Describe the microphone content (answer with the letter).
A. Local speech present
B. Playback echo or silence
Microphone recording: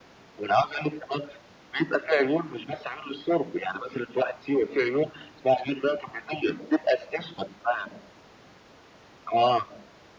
B